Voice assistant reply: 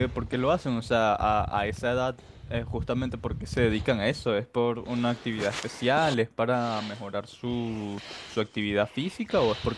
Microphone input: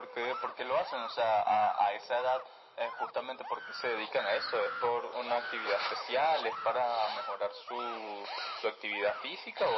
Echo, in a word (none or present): present